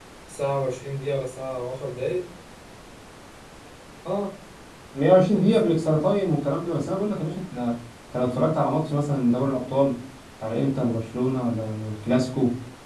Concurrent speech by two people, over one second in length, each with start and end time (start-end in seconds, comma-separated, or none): none